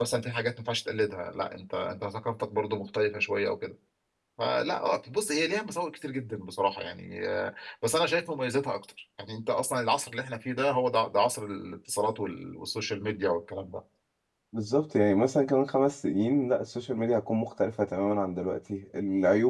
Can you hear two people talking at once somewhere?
No

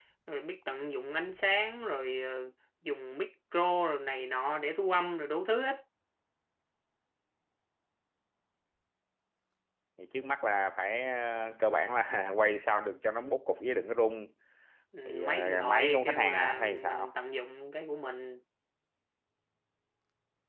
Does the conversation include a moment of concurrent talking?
Yes, from 15.1 s

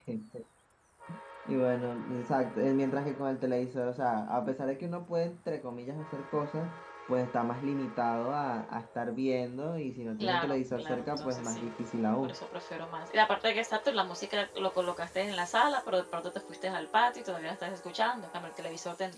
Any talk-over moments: Yes, from 10.2 s

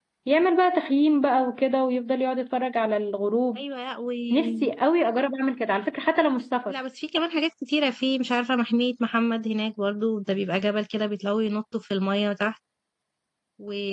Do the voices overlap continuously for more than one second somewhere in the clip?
No

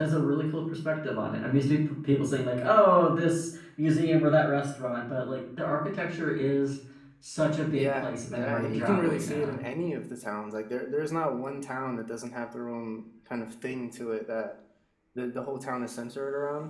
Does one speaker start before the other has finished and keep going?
Yes, from 7.8 s

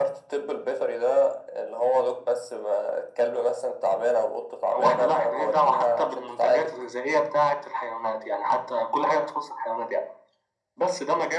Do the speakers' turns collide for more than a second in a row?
Yes, from 4.7 s

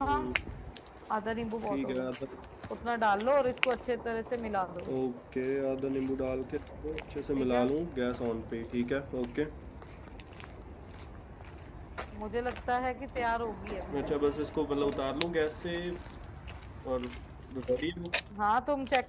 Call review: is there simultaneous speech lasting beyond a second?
No

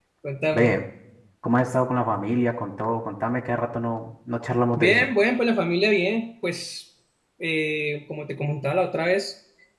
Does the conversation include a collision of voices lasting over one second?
No

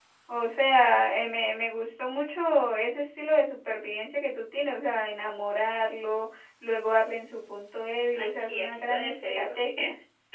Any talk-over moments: Yes, from 8.2 s

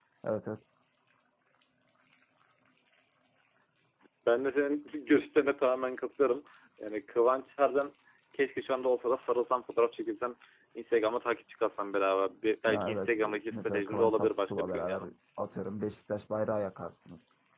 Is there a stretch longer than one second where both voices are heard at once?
Yes, from 12.7 s

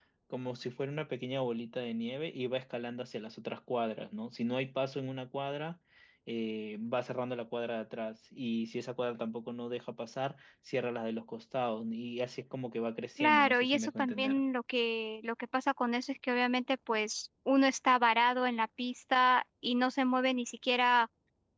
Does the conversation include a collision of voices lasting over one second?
Yes, from 13.2 s

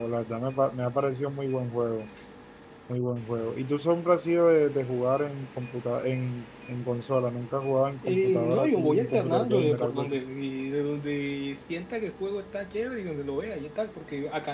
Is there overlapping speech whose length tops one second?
Yes, from 8.0 s

